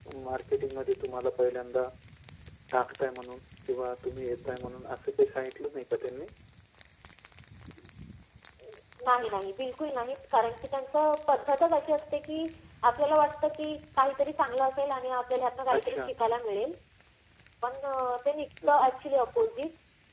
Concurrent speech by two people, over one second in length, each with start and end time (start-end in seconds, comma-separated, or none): none